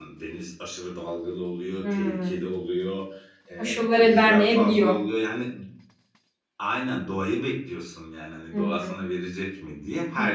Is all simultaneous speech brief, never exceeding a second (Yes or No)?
No